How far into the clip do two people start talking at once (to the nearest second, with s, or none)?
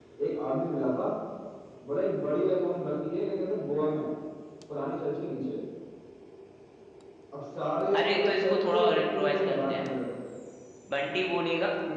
8 s